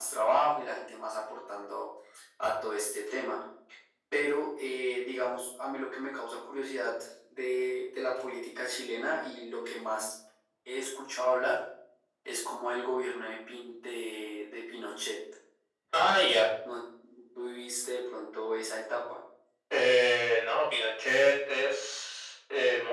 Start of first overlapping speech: none

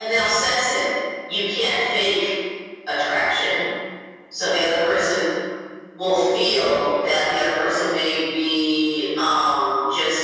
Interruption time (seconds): none

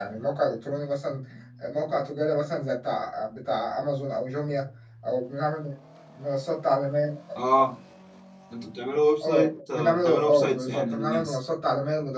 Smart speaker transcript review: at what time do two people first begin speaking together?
9.2 s

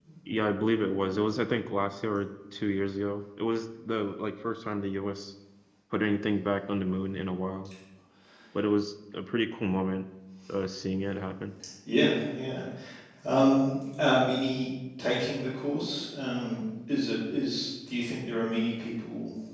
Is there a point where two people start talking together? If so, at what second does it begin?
none

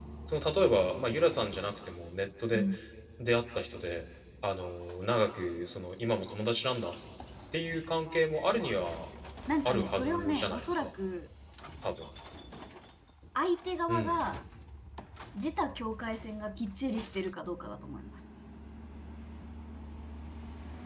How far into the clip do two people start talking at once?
9.7 s

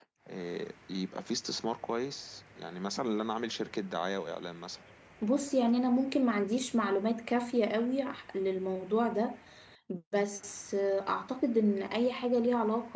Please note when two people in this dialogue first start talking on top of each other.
none

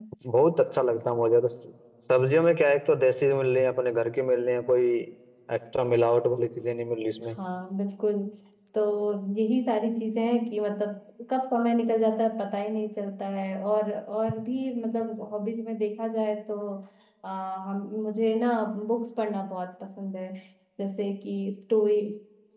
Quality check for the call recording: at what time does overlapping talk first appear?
none

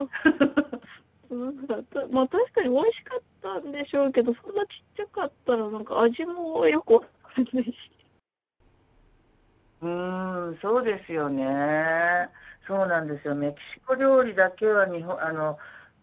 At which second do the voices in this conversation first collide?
none

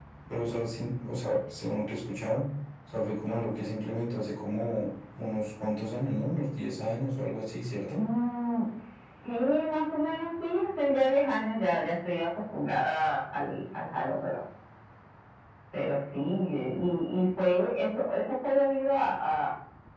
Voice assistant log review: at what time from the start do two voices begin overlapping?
none

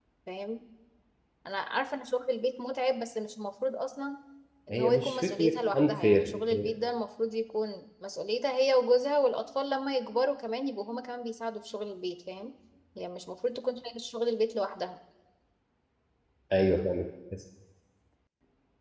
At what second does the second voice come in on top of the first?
4.7 s

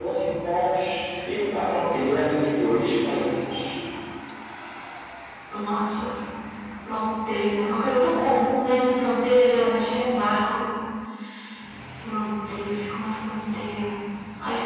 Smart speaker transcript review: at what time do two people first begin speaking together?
none

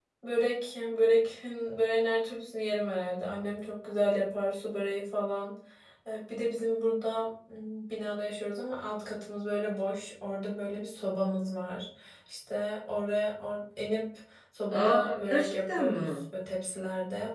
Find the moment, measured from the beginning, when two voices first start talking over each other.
14.7 s

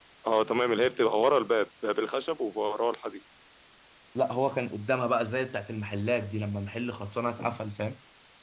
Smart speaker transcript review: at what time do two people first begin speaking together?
none

